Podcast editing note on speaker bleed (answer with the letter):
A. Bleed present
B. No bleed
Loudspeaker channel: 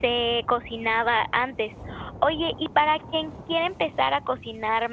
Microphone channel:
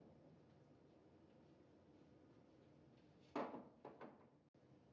B